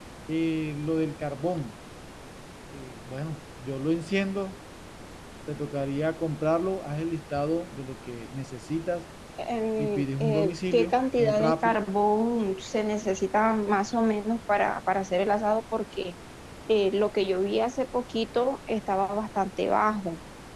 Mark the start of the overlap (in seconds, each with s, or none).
9.8 s